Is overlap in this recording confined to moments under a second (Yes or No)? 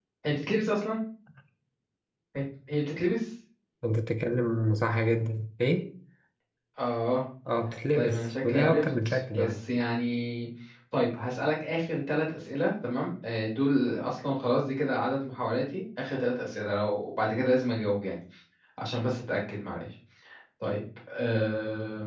No